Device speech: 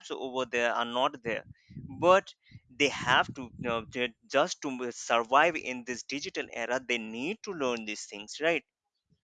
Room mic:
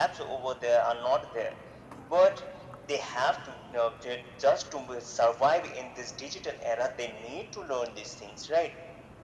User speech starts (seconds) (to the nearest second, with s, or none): none